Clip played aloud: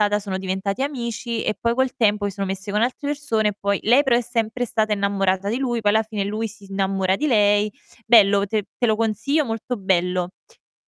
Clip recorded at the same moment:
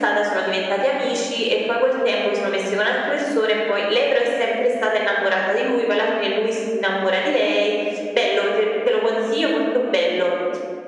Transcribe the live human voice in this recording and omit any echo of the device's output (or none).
none